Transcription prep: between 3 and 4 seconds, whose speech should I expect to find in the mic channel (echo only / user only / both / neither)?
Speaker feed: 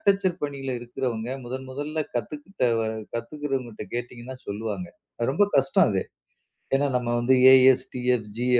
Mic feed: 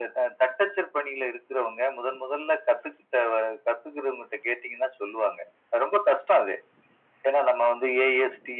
echo only